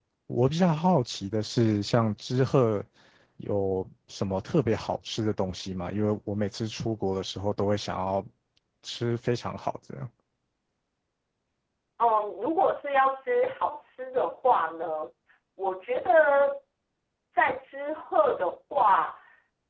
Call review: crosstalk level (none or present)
none